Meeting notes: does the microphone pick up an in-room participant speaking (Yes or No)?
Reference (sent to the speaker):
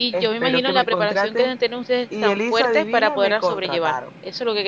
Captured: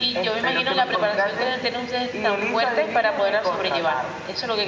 No